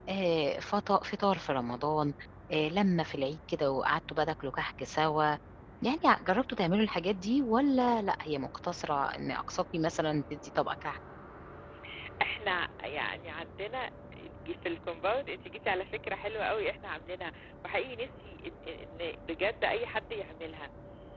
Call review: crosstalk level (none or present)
none